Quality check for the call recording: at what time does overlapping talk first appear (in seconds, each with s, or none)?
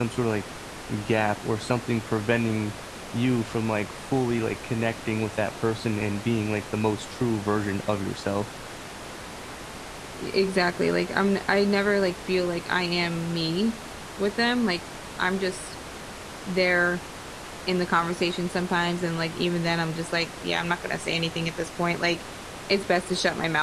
none